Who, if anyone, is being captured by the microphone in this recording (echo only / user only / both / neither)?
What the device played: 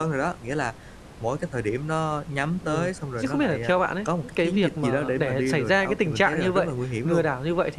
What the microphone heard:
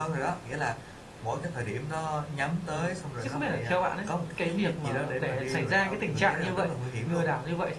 echo only